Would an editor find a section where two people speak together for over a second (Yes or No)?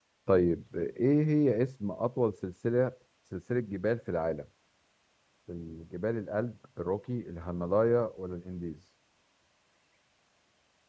No